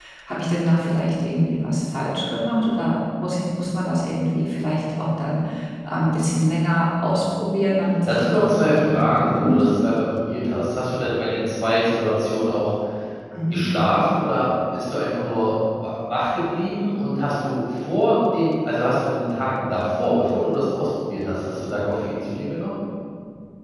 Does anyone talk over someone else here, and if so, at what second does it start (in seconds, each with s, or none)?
8.1 s